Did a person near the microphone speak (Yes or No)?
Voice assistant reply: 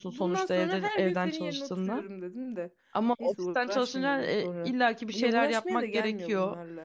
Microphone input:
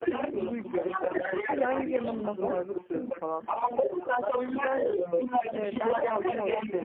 Yes